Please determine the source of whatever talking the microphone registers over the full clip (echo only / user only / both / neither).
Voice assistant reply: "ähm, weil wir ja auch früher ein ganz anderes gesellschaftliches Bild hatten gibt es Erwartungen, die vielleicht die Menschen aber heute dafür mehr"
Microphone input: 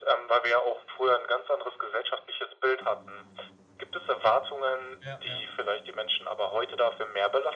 both